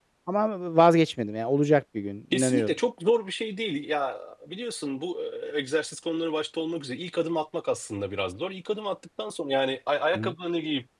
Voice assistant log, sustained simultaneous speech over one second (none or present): none